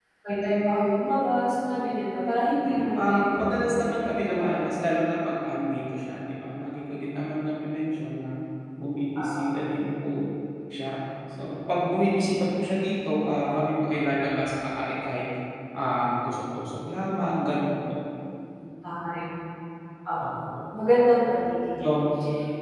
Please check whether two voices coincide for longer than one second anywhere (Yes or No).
Yes